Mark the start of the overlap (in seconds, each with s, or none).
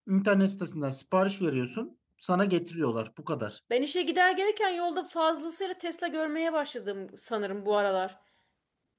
none